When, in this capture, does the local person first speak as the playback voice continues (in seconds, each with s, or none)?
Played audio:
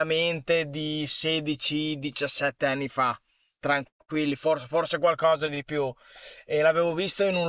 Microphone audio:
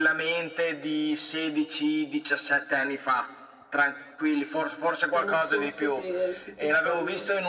5.1 s